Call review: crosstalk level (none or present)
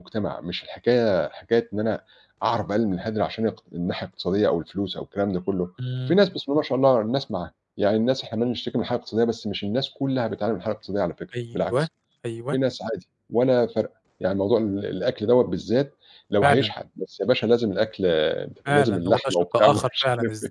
present